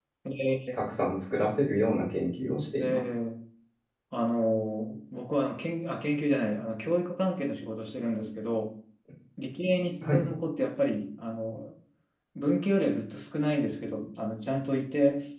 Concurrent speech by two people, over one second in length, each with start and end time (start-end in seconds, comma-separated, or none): none